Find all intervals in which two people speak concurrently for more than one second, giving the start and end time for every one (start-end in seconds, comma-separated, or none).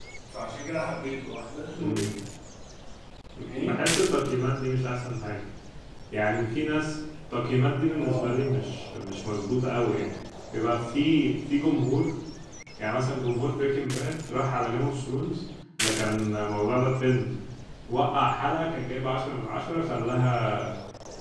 none